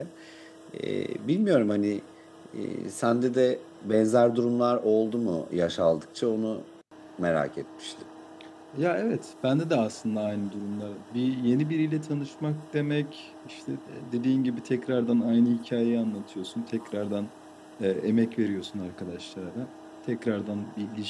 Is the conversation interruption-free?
Yes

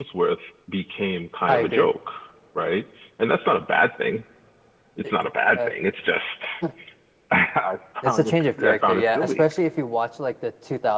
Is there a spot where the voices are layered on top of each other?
Yes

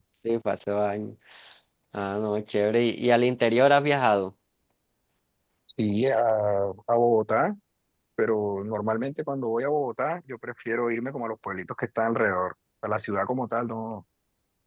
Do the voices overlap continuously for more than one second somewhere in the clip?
No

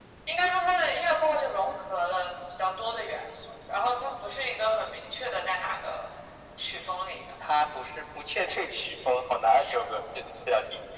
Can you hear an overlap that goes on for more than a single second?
No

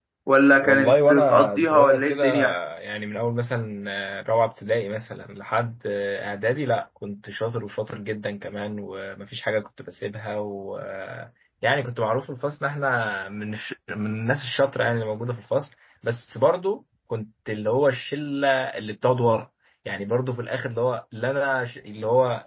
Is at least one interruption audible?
Yes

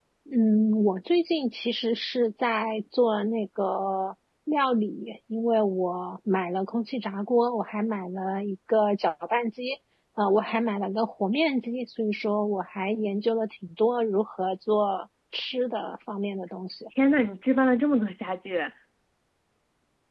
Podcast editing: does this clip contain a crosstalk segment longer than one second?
No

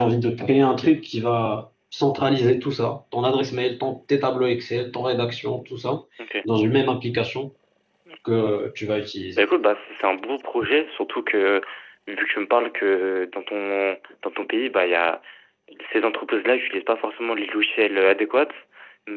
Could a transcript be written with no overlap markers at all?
Yes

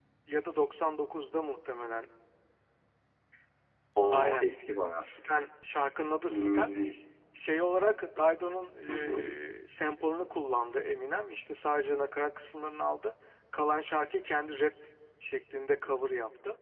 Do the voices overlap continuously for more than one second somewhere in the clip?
No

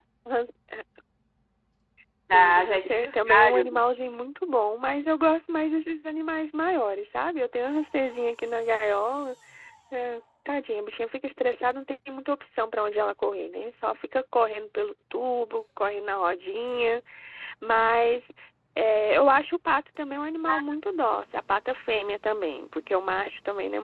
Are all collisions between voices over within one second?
No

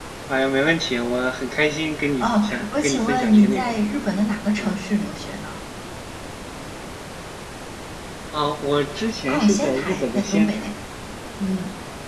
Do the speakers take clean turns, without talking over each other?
No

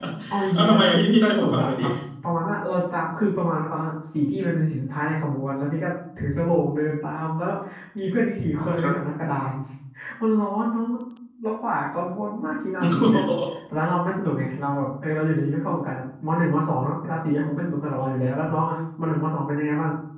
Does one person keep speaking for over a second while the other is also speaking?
Yes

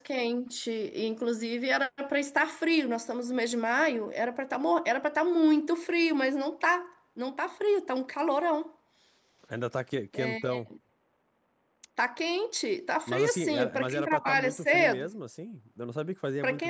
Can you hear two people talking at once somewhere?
Yes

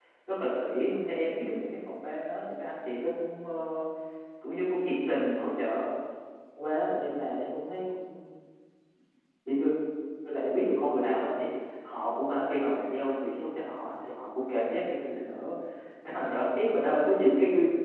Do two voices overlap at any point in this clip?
No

